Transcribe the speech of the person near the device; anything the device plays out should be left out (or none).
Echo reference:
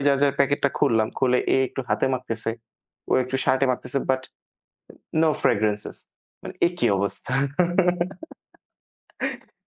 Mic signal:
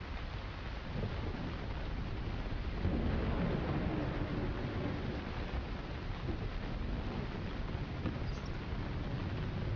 none